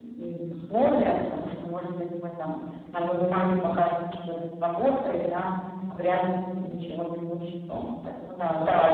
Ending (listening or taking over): taking over